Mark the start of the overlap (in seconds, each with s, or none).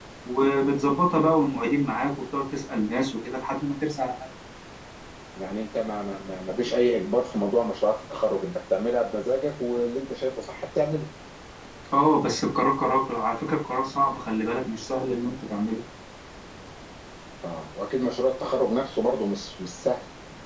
none